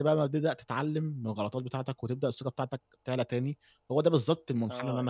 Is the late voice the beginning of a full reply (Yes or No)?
Yes